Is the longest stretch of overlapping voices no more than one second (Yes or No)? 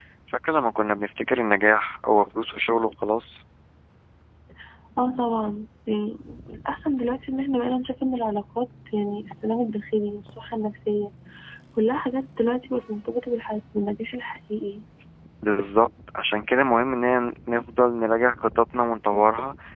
Yes